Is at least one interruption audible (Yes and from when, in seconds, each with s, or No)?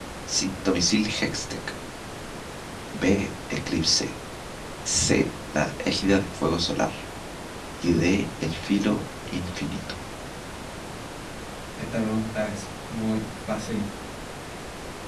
No